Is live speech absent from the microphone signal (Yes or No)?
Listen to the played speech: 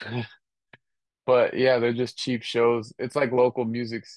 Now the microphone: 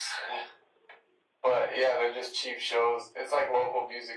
Yes